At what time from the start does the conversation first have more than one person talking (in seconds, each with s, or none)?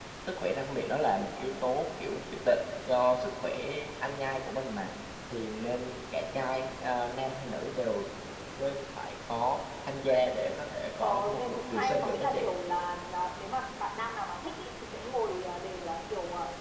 11.0 s